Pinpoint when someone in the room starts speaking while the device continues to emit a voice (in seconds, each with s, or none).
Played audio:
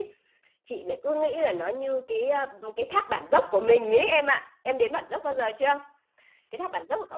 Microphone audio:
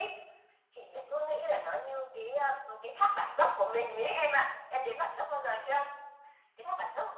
none